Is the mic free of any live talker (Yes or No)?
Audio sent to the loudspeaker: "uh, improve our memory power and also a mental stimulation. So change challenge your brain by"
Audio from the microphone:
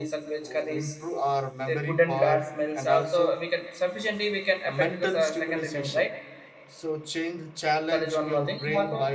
No